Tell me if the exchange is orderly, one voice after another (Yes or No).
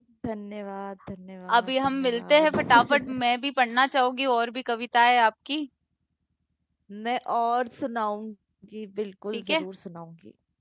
No